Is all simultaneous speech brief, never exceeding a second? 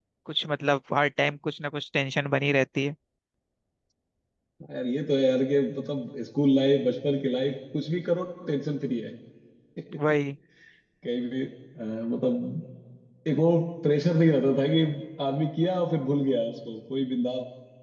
Yes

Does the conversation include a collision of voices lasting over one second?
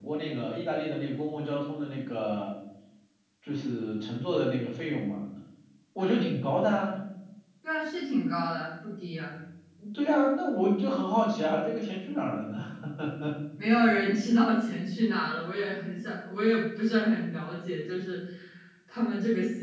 No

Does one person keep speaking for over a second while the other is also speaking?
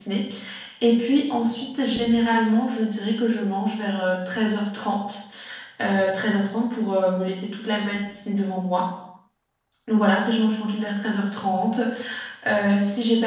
No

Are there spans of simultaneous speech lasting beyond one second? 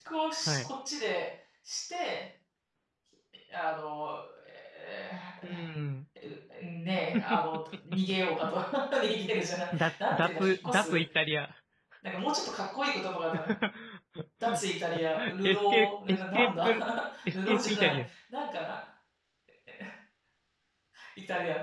Yes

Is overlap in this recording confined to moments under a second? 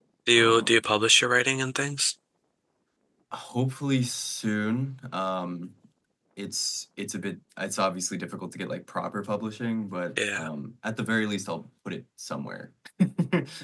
Yes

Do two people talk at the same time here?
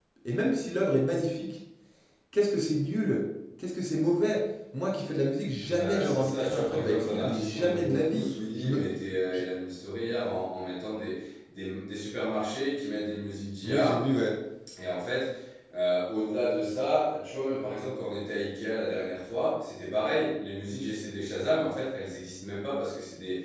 Yes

